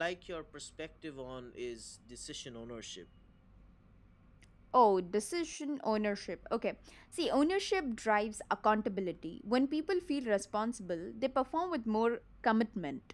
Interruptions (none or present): none